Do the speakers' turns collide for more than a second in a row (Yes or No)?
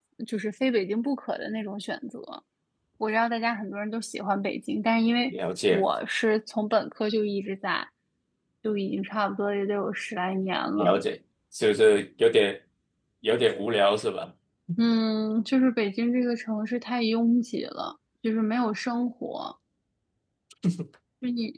No